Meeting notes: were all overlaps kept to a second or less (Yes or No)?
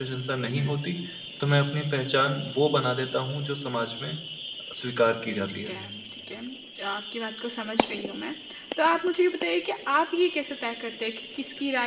Yes